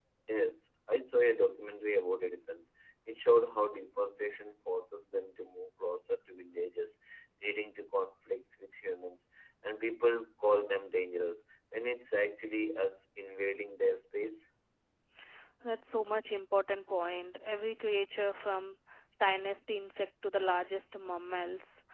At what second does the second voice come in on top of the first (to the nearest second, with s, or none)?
none